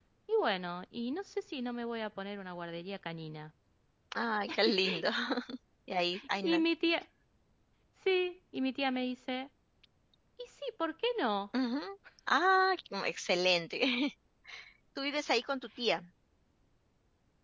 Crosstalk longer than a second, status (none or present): none